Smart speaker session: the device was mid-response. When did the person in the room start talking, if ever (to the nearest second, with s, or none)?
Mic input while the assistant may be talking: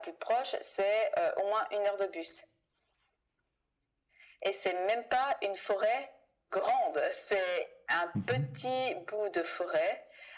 8 s